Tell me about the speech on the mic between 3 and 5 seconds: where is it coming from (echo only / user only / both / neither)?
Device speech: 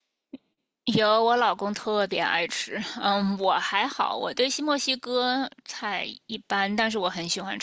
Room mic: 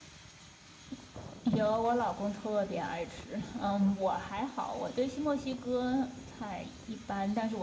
echo only